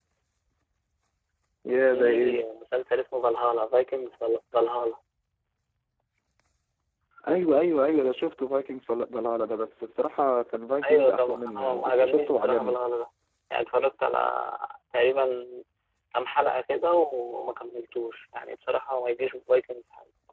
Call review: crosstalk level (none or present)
present